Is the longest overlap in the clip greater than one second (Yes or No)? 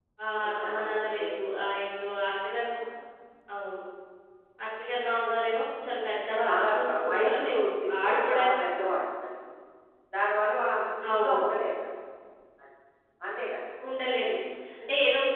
Yes